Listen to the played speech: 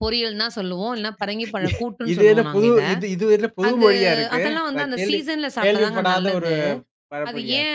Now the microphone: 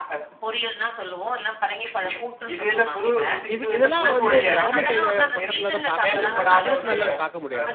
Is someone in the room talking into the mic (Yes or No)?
Yes